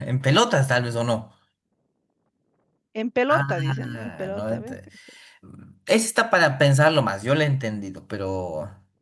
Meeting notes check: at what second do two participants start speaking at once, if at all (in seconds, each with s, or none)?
3.3 s